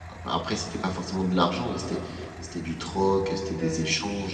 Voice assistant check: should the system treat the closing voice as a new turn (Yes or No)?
No